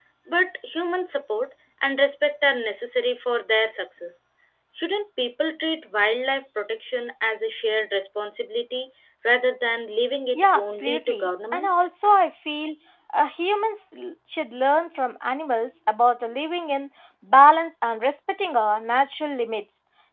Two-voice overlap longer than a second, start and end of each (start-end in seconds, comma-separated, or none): 10.3-11.9